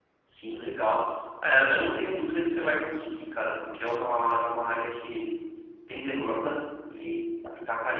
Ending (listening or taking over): listening